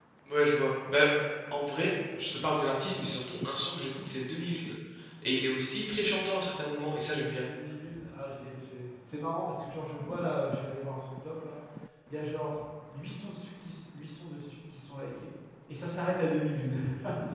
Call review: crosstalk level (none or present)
none